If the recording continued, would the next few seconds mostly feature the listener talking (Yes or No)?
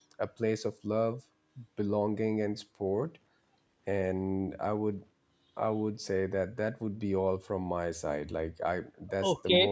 Yes